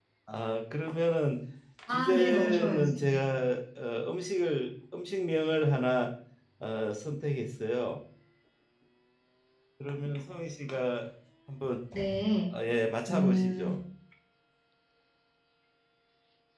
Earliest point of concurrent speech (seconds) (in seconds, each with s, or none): 1.9 s